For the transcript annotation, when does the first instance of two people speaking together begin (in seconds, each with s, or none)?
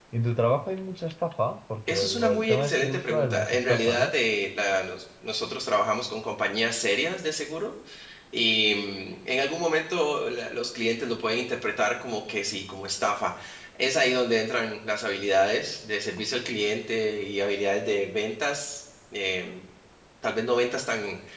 1.9 s